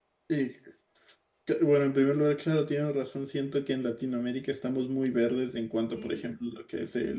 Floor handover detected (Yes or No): No